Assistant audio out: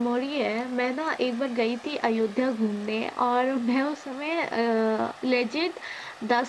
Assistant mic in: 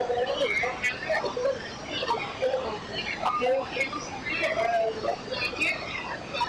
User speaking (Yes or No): No